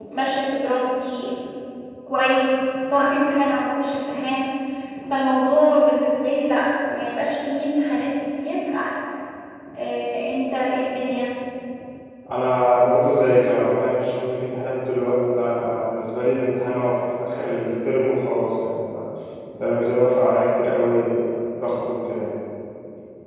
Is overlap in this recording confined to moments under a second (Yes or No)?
Yes